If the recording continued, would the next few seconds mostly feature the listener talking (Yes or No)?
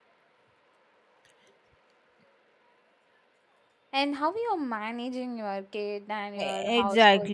Yes